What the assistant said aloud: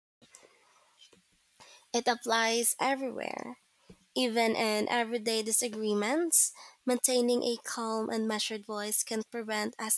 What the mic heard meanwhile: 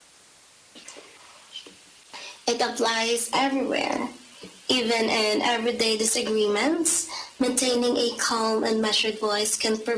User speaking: No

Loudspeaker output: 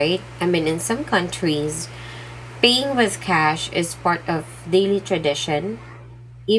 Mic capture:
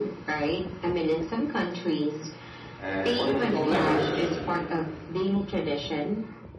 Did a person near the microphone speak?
Yes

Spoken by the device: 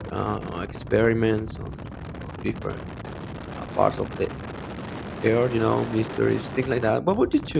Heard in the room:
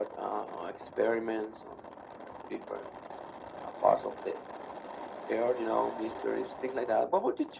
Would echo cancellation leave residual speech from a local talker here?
No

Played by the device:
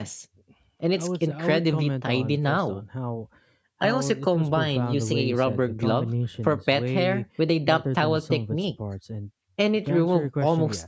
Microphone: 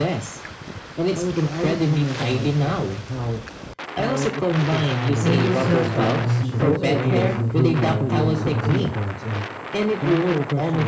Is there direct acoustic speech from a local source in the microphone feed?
Yes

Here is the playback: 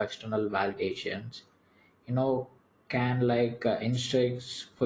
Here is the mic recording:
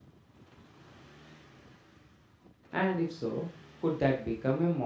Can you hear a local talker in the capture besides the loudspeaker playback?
Yes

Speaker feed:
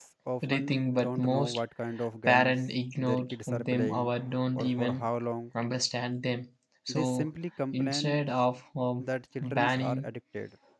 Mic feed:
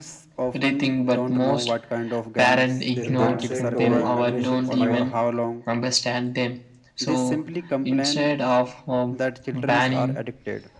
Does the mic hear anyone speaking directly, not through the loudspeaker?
Yes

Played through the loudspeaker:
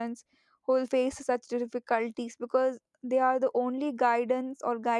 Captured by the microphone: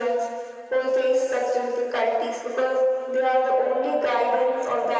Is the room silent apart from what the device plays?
Yes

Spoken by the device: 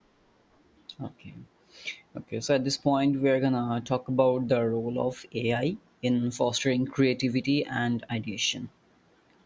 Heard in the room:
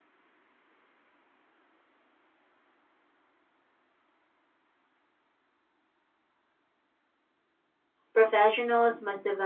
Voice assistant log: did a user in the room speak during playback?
Yes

